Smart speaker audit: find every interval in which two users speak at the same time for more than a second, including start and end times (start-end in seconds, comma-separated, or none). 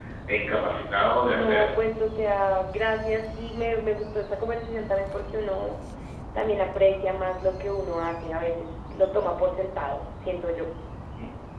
none